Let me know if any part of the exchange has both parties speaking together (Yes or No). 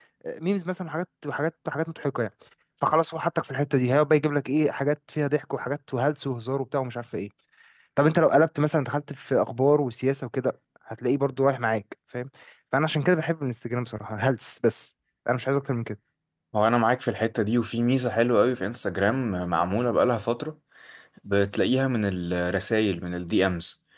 No